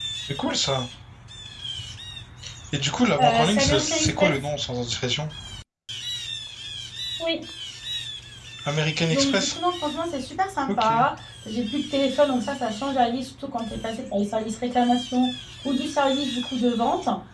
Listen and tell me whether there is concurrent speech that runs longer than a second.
Yes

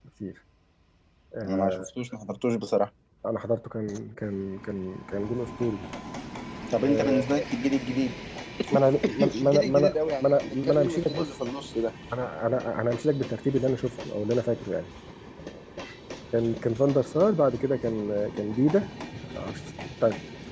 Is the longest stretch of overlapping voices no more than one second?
No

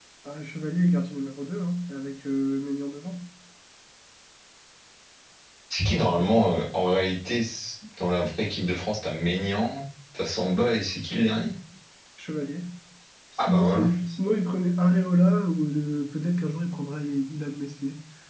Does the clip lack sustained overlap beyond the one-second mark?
Yes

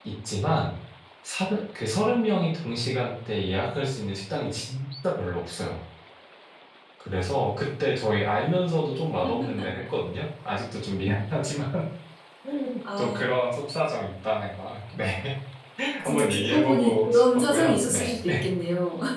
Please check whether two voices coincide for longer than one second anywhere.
Yes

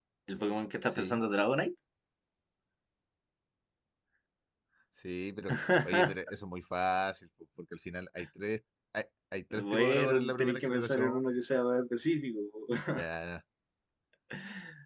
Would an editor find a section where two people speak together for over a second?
Yes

